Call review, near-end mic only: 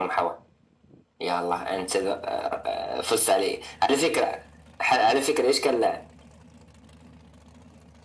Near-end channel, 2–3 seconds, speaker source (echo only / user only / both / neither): echo only